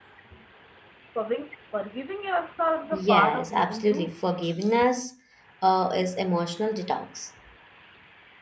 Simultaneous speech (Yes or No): Yes